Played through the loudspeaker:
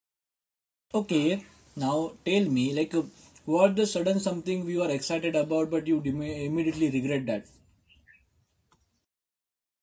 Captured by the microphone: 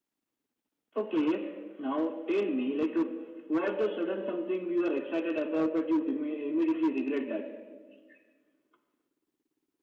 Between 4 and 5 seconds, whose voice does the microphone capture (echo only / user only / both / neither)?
echo only